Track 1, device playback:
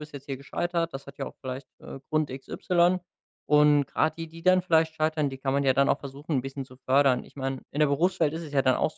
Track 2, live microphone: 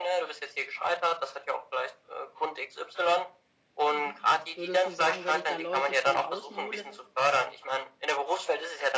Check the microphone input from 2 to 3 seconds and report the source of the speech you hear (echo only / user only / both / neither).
echo only